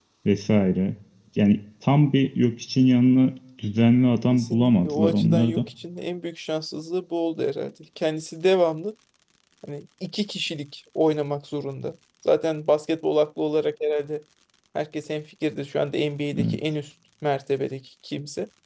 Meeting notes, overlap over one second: present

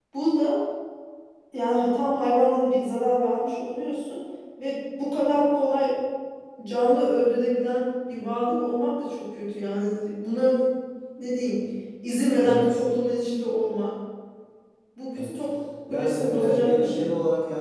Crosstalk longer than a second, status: present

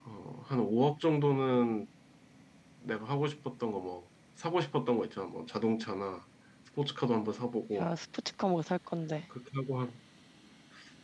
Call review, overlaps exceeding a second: none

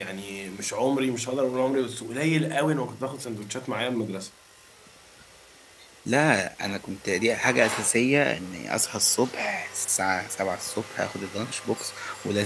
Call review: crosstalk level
none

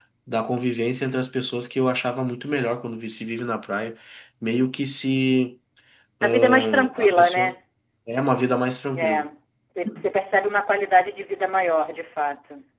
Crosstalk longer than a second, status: present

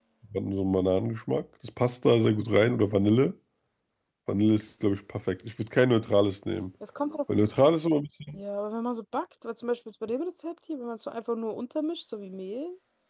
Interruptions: none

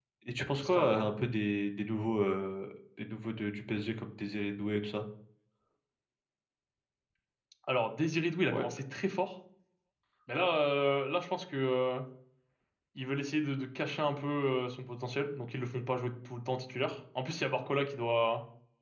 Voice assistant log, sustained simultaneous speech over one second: none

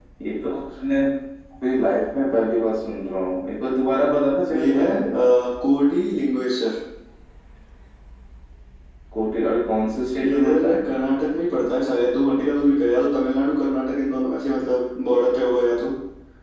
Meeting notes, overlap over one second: none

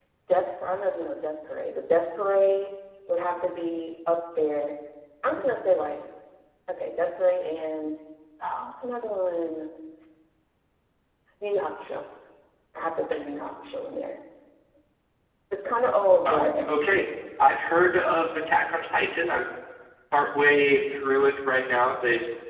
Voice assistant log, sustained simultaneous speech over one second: none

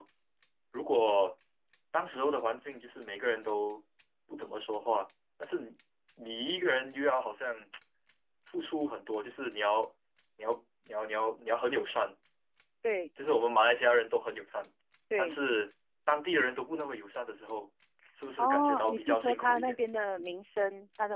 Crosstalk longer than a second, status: present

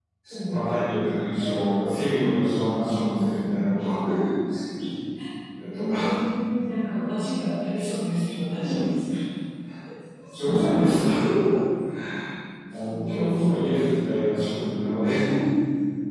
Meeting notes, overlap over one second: present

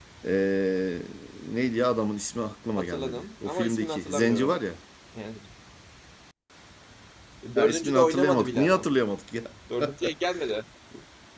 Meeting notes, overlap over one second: present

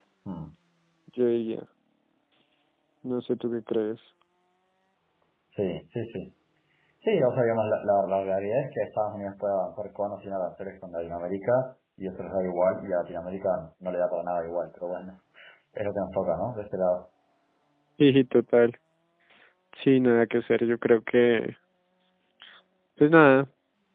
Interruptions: none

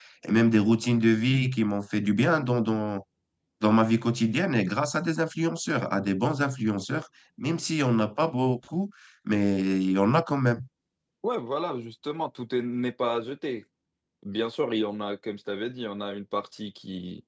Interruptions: none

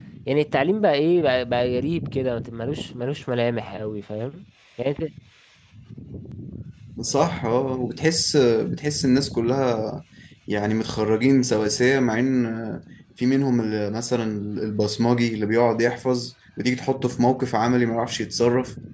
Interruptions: none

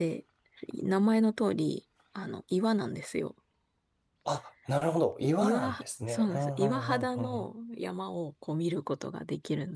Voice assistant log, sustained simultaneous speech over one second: present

